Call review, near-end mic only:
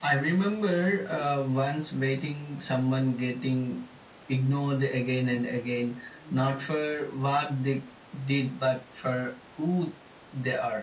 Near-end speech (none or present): none